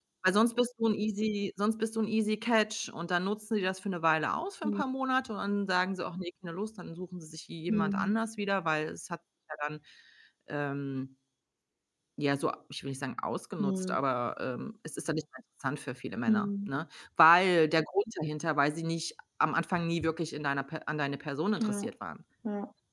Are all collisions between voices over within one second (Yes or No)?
Yes